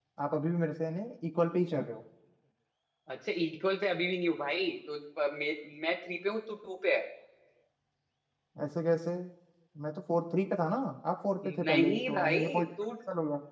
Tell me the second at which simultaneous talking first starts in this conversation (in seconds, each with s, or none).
11.4 s